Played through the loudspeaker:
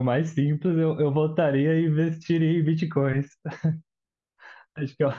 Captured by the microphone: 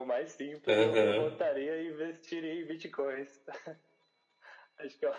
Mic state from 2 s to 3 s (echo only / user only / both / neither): echo only